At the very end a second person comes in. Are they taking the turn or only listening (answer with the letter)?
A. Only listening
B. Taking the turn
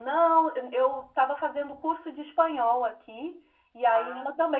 A